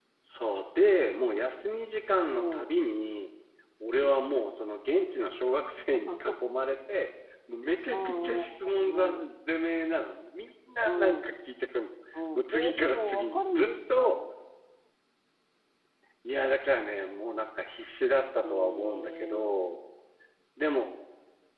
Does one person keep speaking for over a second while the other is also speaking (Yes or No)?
Yes